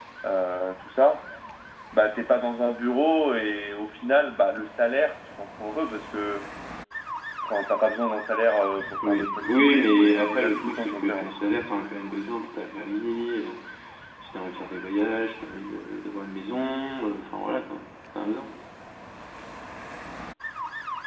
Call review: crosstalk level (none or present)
present